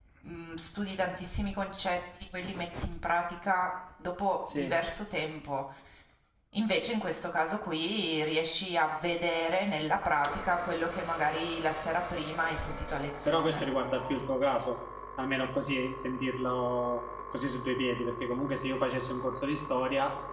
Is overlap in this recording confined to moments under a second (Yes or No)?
Yes